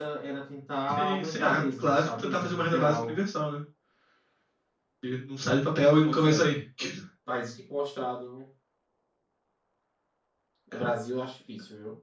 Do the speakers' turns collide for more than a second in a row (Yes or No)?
Yes